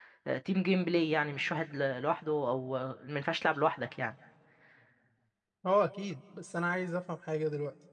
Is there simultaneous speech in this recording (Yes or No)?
No